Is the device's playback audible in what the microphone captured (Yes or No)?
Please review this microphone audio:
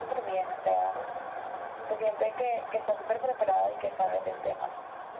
Yes